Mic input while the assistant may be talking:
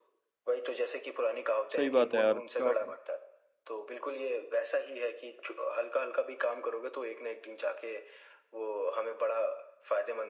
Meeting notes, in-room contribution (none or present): present